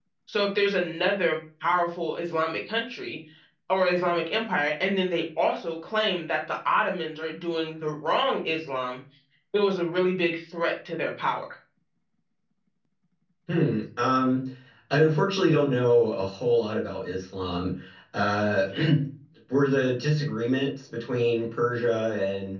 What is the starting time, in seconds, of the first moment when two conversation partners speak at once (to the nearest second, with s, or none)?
none